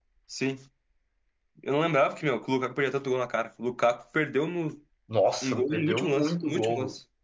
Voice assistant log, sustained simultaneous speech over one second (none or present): present